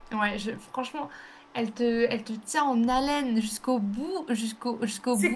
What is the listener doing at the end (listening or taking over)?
taking over